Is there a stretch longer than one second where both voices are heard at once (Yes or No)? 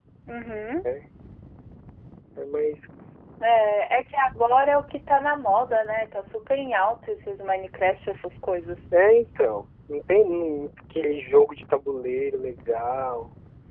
No